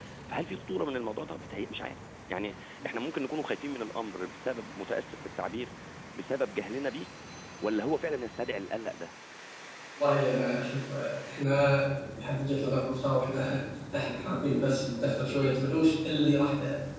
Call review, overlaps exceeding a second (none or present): none